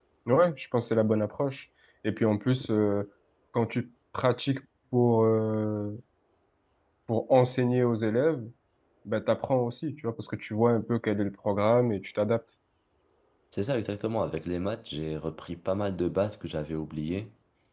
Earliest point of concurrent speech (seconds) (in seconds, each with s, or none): none